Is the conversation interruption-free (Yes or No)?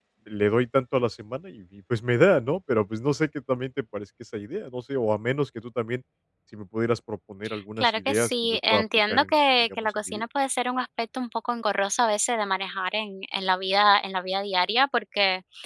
No